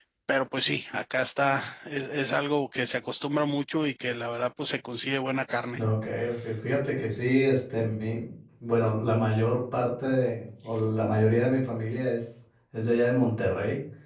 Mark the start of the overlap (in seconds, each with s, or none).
none